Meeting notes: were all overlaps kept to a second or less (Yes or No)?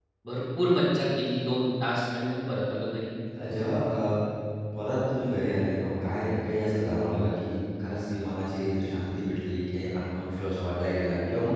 Yes